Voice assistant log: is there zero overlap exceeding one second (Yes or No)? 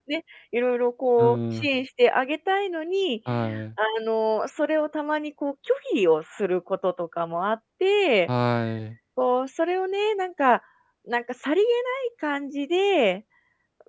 Yes